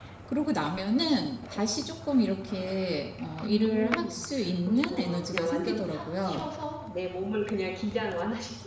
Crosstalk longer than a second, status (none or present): present